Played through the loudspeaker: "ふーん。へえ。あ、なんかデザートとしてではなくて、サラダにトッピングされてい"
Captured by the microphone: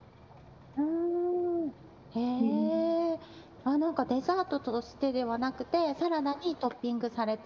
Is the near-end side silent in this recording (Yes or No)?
No